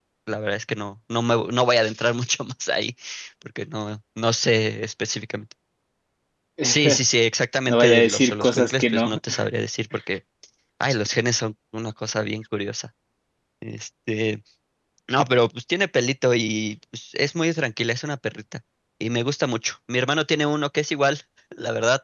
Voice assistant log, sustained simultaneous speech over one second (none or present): present